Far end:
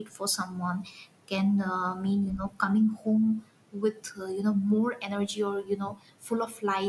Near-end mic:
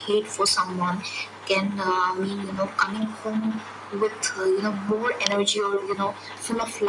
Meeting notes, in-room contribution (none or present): none